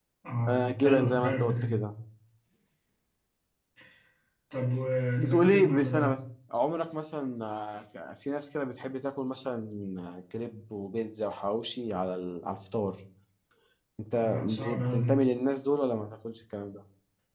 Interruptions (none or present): present